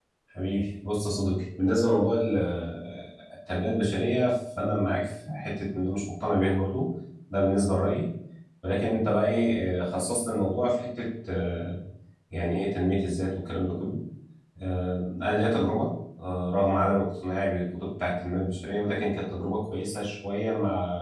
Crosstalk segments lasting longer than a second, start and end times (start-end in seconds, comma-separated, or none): none